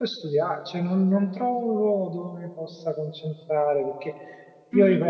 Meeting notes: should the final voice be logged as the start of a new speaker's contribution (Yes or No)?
No